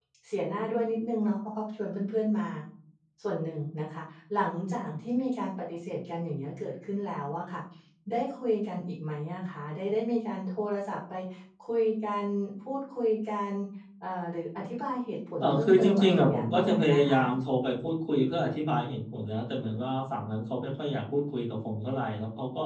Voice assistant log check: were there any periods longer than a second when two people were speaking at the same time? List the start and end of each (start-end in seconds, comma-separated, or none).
15.4-17.1